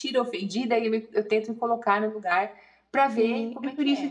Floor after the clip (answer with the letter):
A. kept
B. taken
B